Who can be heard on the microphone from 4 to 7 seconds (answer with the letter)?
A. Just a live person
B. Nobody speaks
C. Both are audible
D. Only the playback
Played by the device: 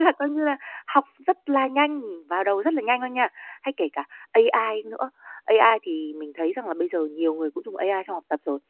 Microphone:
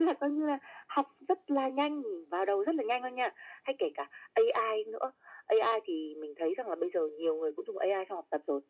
D